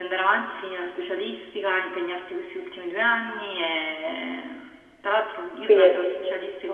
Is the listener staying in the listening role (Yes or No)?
Yes